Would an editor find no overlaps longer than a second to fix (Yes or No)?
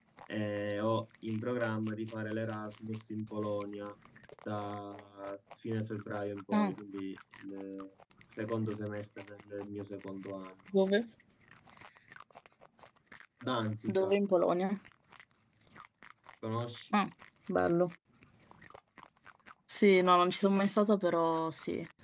Yes